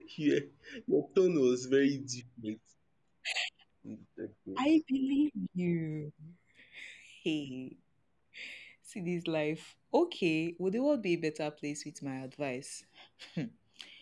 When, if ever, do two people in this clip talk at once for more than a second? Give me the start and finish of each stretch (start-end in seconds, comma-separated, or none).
none